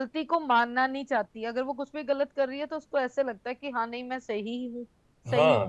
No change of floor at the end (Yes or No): No